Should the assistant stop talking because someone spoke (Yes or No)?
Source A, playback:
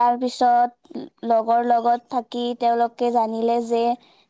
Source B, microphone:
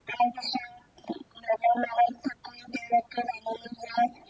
No